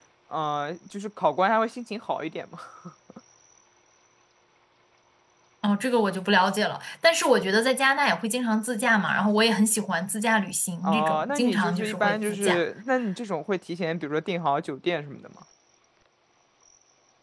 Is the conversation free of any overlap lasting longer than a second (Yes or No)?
No